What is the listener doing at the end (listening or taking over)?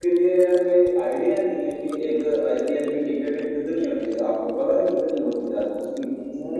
taking over